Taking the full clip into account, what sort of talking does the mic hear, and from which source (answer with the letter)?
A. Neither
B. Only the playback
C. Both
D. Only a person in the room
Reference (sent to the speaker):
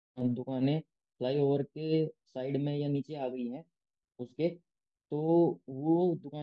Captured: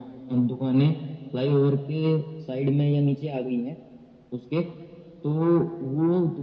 B